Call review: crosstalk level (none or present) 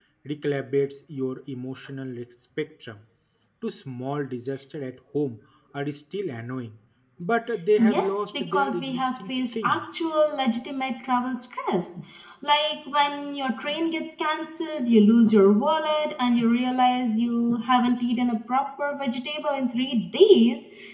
present